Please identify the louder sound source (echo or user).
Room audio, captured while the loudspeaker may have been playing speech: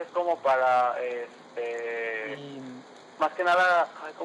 echo